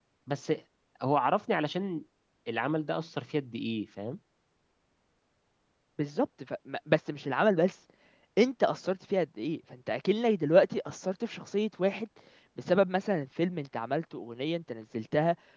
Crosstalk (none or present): none